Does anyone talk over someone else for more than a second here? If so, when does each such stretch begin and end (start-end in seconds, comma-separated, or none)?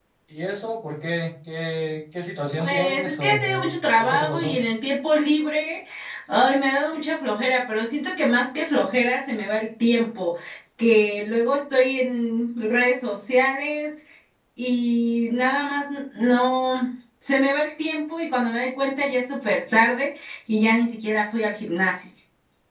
2.6-4.5